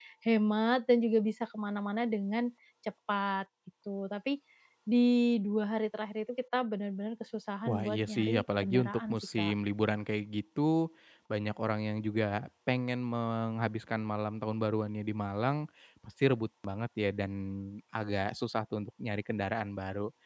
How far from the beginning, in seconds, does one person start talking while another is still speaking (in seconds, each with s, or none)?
7.7 s